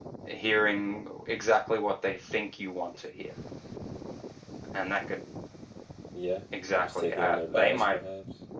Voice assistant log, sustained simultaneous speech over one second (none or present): present